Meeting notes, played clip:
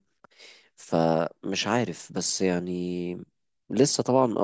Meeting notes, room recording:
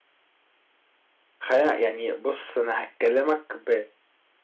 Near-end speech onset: 1 s

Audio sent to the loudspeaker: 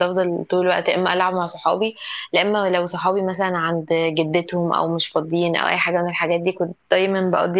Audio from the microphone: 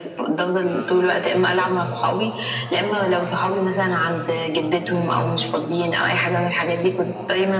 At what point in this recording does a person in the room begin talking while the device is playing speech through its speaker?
1 s

